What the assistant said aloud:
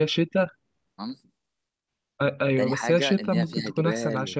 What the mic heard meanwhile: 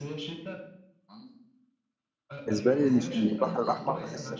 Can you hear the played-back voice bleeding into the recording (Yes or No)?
Yes